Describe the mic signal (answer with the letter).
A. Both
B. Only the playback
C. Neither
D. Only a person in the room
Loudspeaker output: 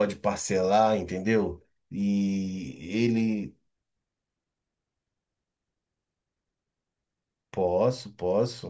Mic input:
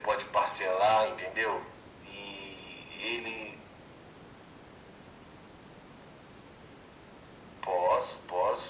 B